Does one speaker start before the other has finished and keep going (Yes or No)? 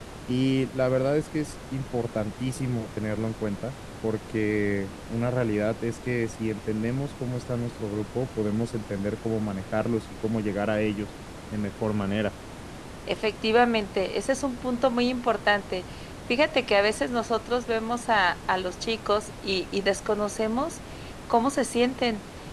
No